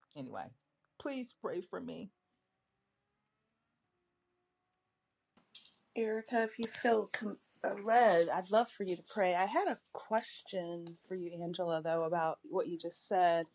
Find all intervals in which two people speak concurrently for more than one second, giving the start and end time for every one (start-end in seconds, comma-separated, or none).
none